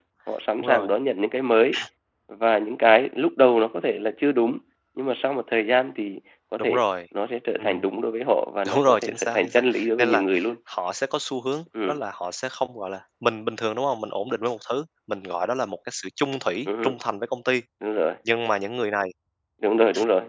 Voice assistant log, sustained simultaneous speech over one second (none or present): present